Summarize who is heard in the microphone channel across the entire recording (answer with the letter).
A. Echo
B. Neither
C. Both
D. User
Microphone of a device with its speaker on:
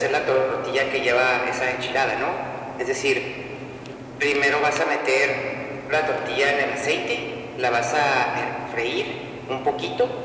A